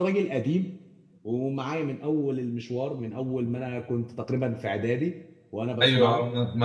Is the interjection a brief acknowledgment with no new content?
No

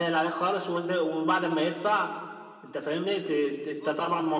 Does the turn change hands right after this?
No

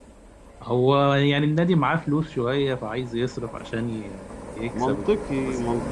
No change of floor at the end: No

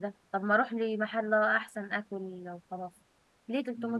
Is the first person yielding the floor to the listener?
Yes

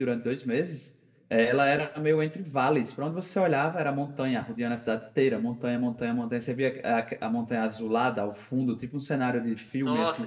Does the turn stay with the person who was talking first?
No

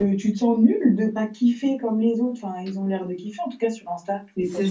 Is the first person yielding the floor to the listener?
Yes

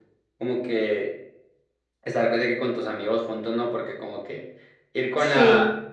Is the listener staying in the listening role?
Yes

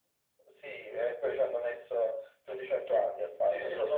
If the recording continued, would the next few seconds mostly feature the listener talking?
Yes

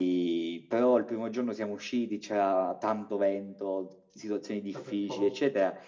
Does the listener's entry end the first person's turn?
No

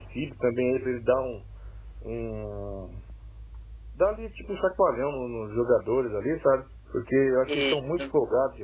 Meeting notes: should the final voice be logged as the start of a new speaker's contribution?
No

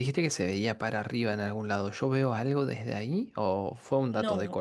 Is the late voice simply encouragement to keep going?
No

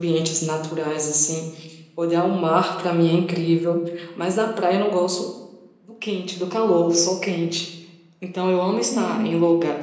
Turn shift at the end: No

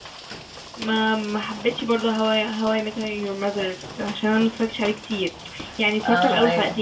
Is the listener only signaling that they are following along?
Yes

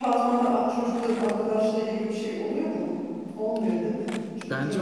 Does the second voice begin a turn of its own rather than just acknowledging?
Yes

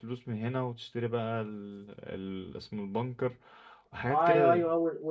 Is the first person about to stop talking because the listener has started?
Yes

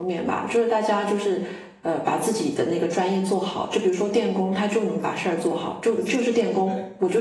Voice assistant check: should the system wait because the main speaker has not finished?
Yes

